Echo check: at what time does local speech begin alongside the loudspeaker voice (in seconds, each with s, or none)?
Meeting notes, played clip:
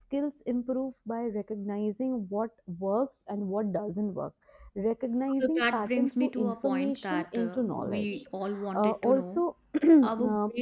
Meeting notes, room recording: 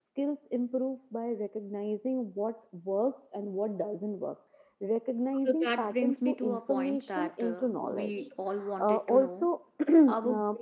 none